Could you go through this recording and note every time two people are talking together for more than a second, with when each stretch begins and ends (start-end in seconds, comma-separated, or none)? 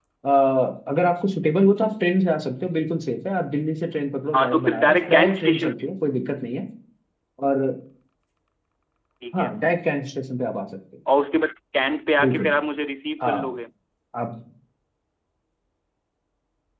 4.3-5.9